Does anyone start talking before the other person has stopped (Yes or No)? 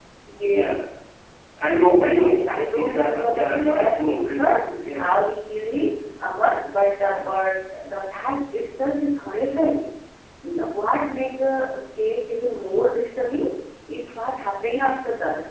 Yes